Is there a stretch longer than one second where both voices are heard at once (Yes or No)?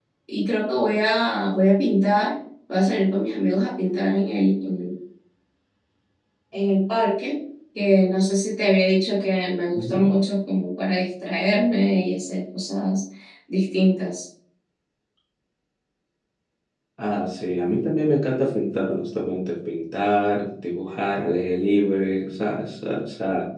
No